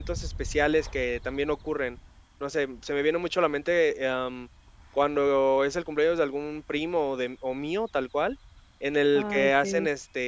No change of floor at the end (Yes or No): Yes